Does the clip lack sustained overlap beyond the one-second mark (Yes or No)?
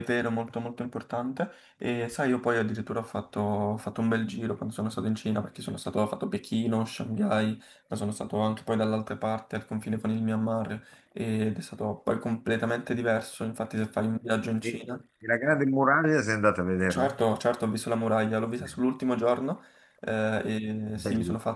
Yes